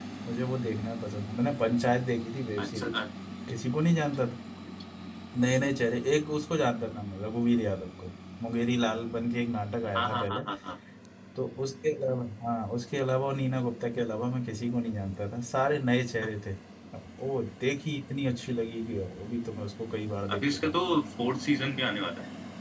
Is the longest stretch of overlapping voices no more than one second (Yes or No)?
Yes